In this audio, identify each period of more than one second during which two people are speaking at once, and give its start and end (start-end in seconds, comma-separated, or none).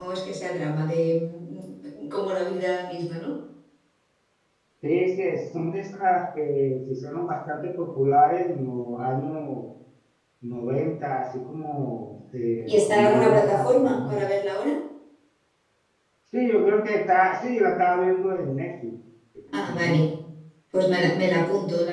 12.7-14.3